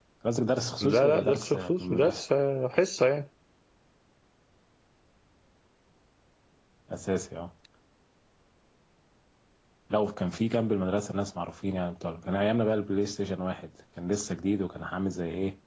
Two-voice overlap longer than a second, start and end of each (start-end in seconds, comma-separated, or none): 0.8-2.2